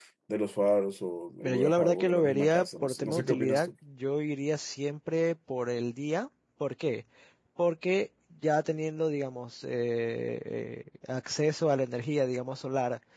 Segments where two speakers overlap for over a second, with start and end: 1.4-3.7

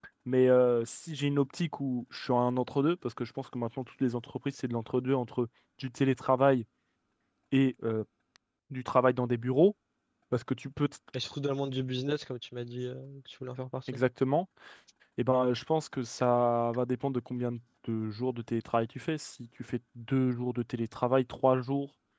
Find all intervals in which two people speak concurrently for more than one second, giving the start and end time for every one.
none

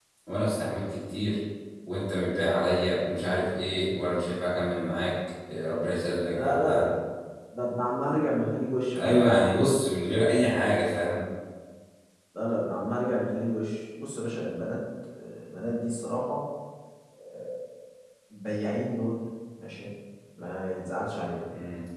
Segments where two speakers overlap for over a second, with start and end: none

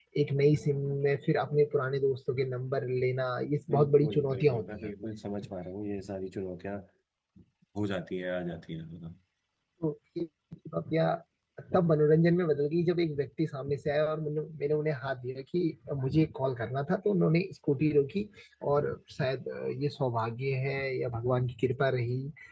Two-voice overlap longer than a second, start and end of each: 3.7-4.9

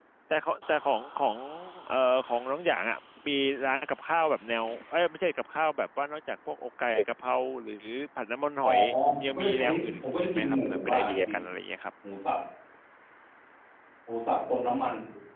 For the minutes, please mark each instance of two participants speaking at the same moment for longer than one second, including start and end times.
9.2-11.3

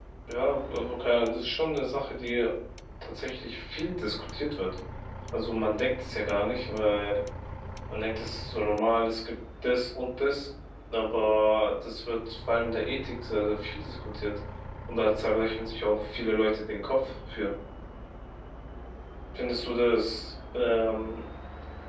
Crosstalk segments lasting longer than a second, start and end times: none

